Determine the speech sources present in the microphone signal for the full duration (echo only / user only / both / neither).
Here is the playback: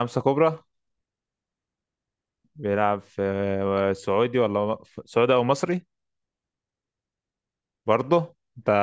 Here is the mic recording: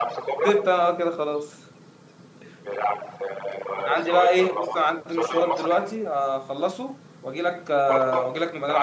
both